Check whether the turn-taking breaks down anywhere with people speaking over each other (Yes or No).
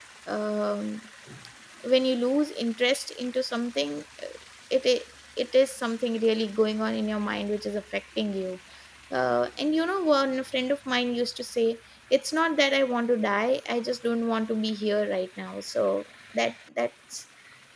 No